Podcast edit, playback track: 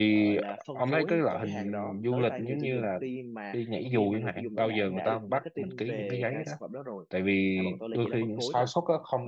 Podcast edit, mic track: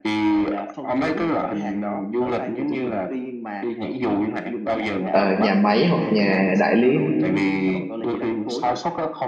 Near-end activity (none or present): present